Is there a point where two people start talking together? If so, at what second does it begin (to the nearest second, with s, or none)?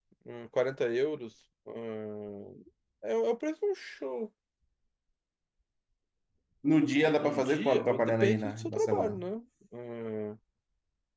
7 s